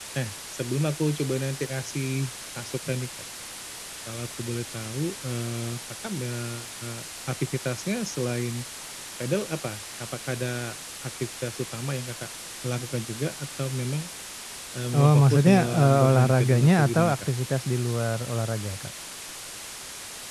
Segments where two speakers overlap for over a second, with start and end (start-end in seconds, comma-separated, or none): 14.9-17.3